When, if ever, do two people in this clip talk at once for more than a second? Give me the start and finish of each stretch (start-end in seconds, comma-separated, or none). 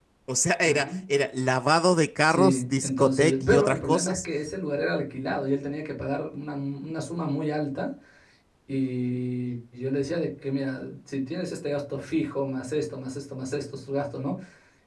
2.2-4.2